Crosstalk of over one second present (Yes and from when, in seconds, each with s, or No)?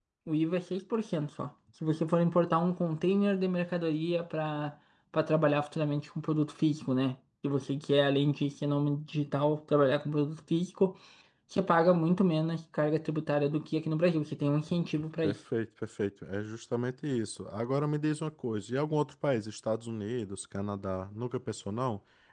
No